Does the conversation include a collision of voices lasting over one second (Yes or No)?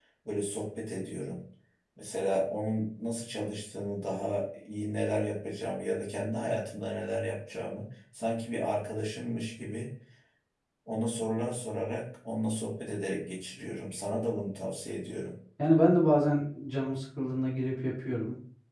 No